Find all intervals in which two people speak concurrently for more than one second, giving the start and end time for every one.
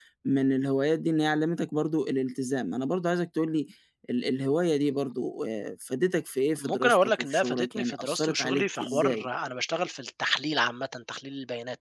6.6-9.3

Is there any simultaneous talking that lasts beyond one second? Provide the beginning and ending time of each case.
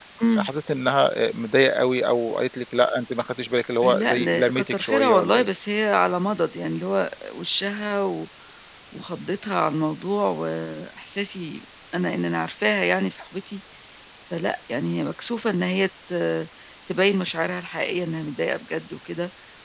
3.8-5.5

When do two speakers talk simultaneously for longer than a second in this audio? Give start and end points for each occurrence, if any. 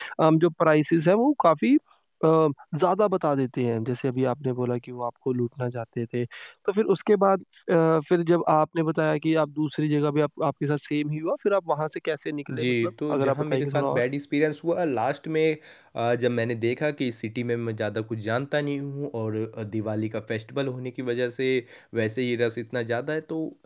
12.5-14.0

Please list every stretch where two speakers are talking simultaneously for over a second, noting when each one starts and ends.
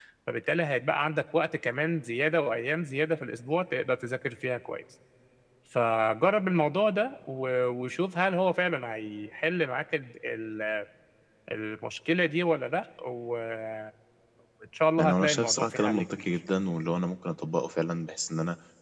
15.0-16.2

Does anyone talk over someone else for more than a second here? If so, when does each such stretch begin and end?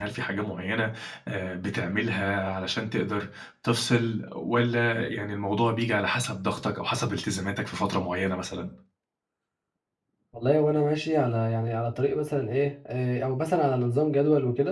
none

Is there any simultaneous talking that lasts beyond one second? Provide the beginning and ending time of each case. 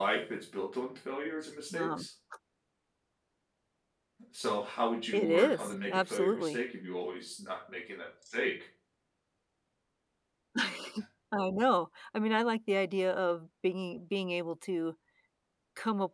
5.1-6.6

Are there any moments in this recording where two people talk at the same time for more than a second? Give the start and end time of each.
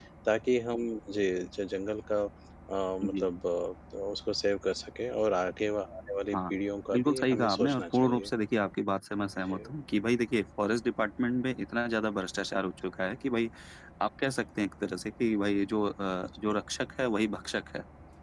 6.9-8.3

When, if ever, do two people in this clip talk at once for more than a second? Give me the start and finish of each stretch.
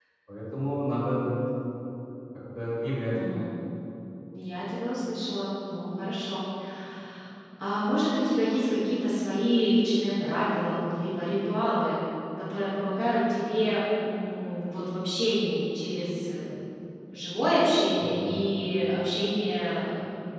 none

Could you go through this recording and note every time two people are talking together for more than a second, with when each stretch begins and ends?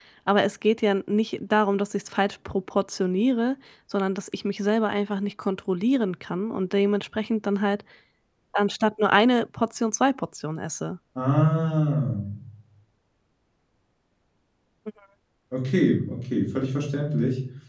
none

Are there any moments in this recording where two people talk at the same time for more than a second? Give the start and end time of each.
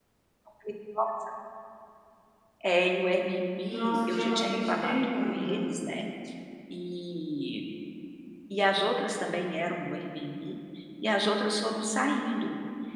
3.7-5.6

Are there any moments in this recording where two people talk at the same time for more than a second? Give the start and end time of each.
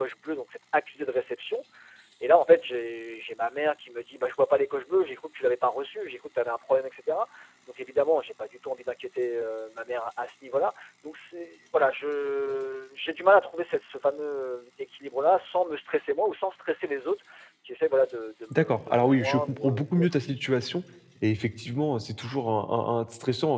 18.5-20.1

